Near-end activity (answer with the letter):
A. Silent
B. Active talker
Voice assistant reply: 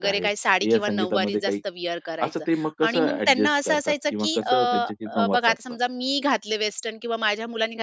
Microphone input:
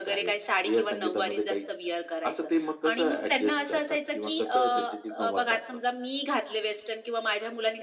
A